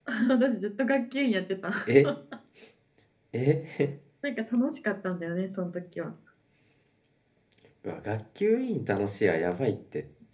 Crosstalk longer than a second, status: none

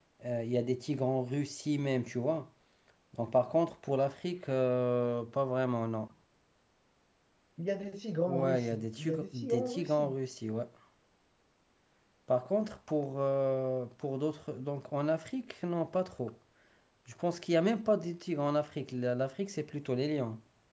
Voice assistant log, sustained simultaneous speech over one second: present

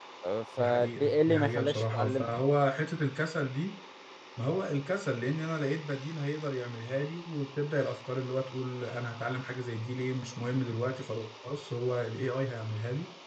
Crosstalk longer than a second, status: present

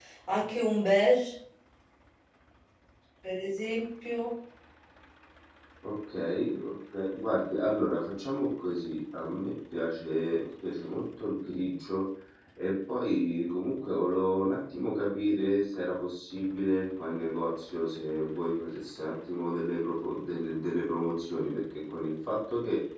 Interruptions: none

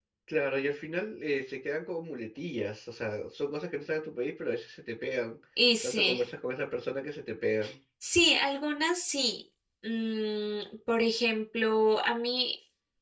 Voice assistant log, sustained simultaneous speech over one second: none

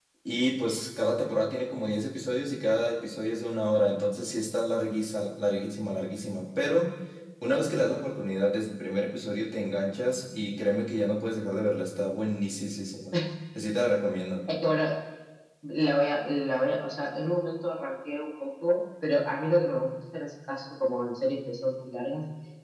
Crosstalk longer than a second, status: none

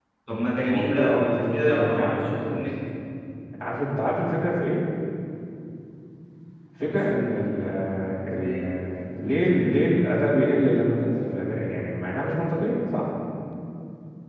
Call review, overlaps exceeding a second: present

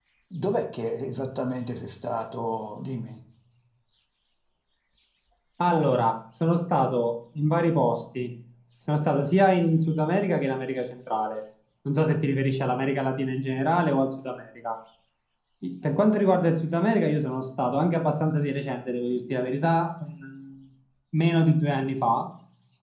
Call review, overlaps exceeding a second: none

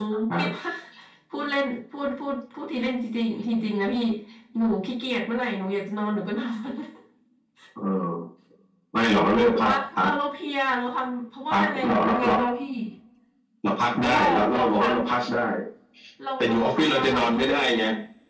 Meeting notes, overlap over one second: present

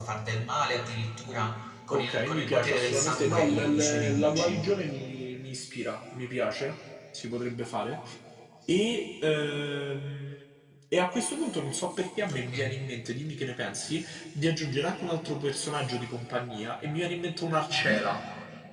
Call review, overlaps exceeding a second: present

